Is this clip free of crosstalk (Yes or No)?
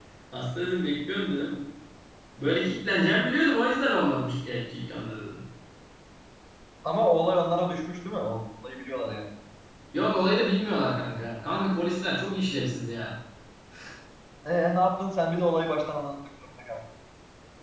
Yes